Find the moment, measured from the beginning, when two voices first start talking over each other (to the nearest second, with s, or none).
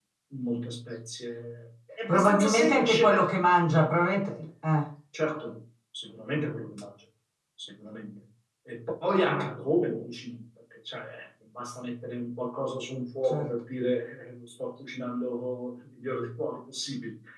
2 s